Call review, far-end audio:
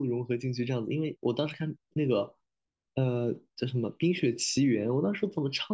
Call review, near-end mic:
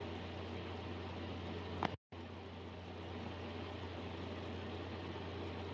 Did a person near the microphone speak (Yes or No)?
No